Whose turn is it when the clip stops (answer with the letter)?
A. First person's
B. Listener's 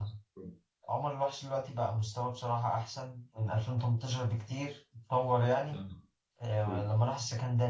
A